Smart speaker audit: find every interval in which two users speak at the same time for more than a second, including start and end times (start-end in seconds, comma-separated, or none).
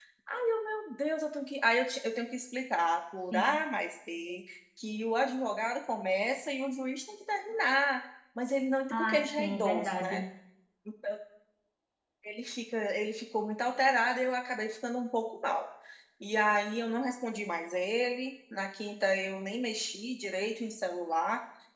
8.9-10.2